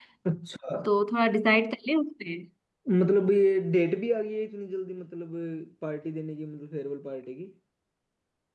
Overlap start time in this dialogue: none

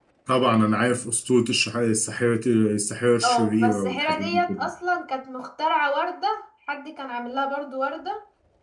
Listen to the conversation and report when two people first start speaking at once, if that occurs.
3 s

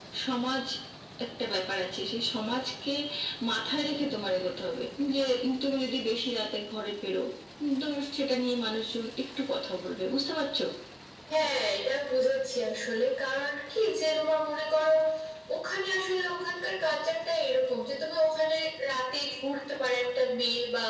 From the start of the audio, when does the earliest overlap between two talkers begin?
none

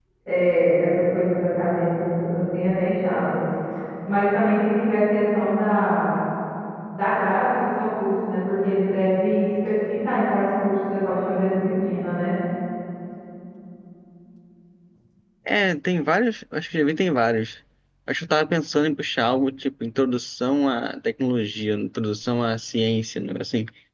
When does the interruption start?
none

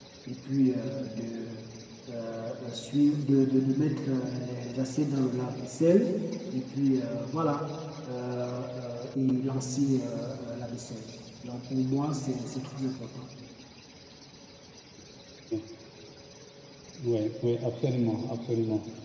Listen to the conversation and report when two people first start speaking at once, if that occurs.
none

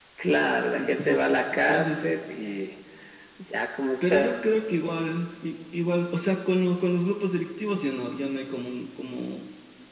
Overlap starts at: 1 s

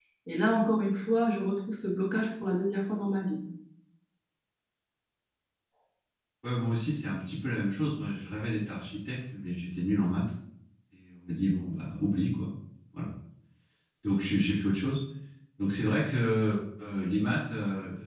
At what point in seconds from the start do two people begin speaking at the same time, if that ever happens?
none

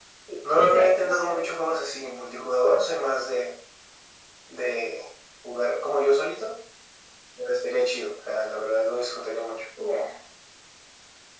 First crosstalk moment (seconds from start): 1 s

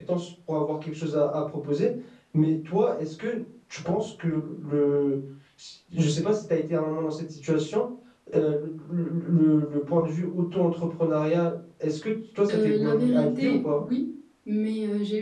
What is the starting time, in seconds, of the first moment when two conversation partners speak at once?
12 s

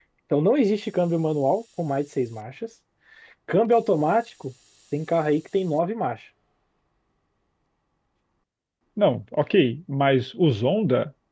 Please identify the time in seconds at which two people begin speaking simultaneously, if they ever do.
none

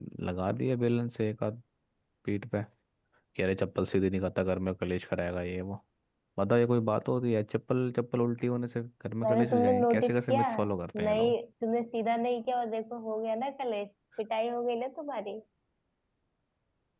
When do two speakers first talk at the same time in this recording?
9 s

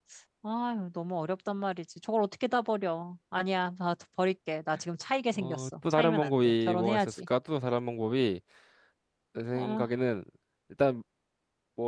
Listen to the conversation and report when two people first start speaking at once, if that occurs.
5 s

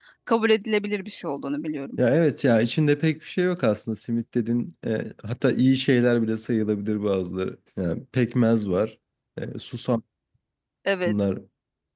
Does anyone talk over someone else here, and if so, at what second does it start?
none

